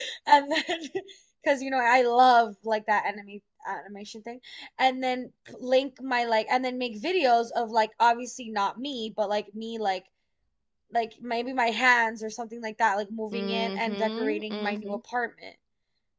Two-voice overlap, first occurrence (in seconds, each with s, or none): 13.3 s